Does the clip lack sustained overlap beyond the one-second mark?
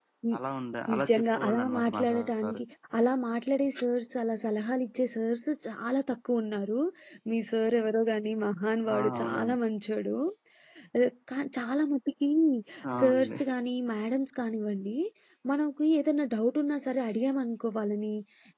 No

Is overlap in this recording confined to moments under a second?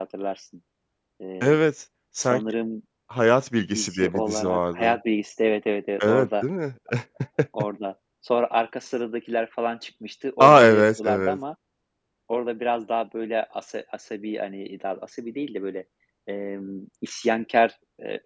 No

